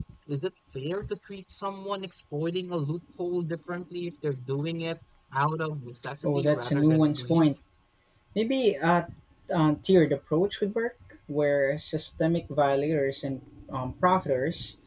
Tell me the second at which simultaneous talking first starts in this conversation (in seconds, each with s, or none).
6.2 s